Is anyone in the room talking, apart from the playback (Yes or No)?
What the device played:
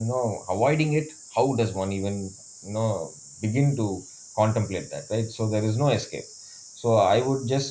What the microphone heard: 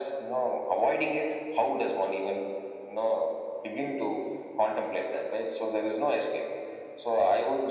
No